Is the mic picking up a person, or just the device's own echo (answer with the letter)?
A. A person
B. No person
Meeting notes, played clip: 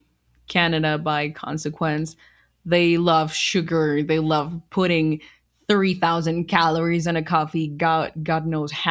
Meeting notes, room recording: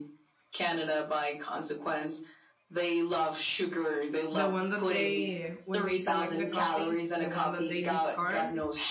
A